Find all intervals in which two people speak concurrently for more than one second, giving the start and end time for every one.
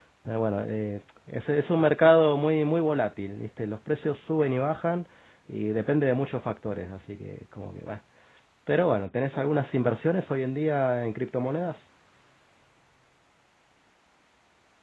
none

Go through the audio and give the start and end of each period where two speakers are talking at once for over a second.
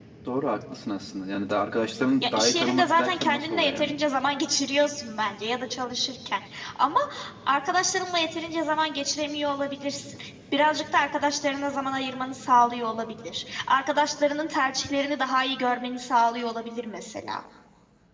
2.2-4.0

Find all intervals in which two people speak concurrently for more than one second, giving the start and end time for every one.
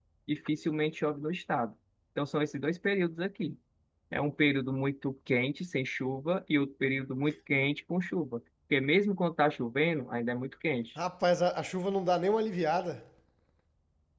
none

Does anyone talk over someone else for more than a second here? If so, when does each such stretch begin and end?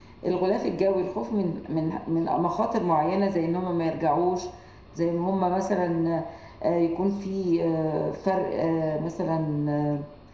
none

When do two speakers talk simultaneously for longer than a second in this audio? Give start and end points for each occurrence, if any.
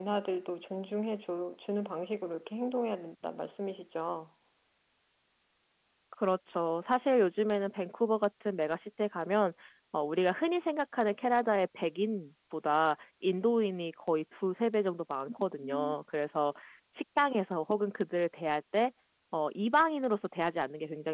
none

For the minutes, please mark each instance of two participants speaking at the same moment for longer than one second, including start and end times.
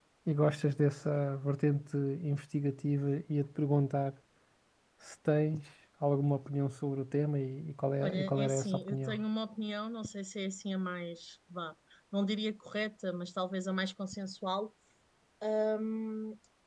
8.0-9.2

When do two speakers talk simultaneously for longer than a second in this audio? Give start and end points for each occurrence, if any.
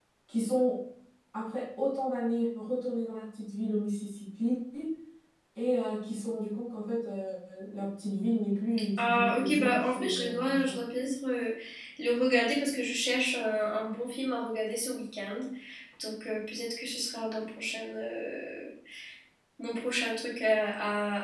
9.0-10.8

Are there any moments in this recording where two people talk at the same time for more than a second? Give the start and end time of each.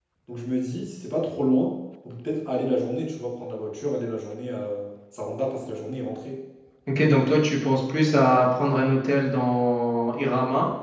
none

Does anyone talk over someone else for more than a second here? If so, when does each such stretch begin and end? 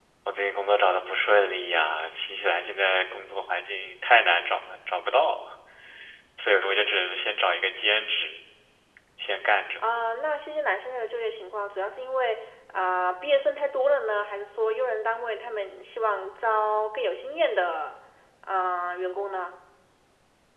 none

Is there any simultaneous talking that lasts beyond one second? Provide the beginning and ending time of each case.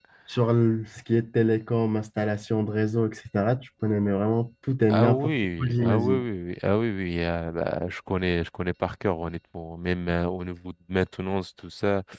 4.9-6.2

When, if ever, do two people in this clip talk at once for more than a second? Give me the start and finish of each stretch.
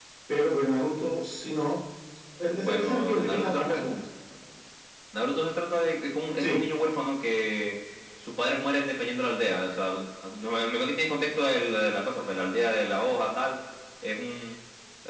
2.5-3.8

